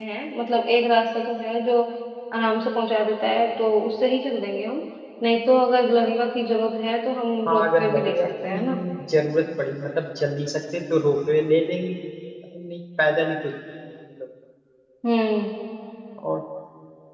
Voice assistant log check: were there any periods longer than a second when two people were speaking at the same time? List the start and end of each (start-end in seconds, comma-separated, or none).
7.5-8.8